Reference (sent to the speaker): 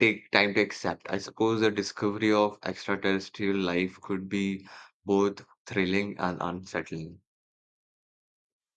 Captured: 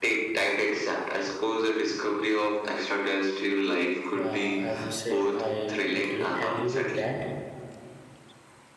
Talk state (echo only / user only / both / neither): both